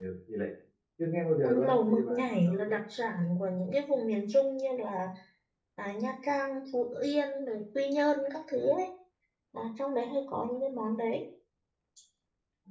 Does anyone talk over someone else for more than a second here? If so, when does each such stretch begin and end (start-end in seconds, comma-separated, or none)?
1.4-2.8